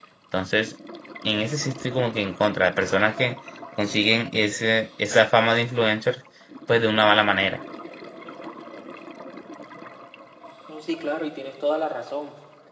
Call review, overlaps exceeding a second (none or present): none